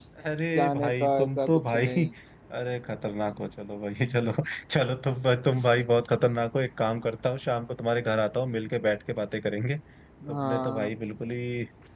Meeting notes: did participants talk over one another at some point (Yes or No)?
Yes